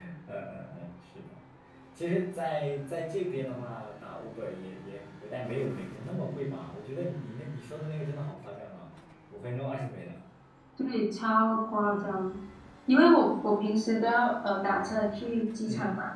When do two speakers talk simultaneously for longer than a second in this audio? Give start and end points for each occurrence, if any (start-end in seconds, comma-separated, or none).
none